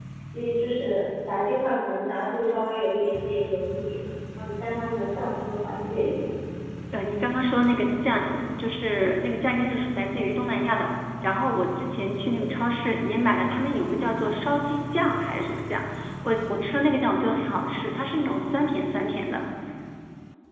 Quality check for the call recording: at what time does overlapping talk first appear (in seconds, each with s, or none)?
none